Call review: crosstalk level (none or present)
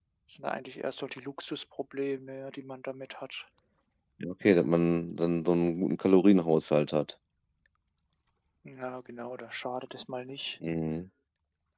none